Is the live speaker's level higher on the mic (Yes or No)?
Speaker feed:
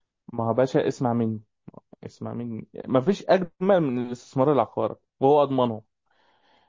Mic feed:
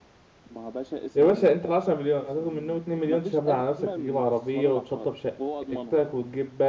Yes